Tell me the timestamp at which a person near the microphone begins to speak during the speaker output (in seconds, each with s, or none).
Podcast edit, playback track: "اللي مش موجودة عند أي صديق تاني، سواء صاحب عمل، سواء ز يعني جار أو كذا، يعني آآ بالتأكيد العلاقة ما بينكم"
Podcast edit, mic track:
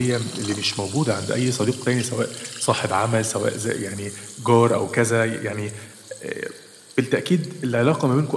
none